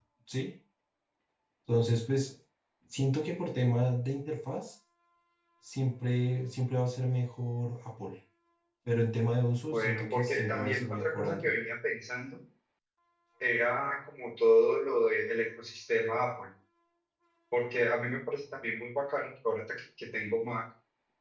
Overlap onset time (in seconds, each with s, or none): 9.7 s